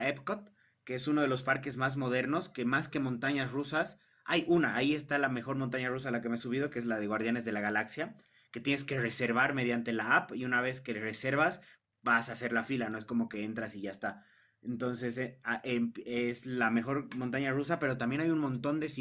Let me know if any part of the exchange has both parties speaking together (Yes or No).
No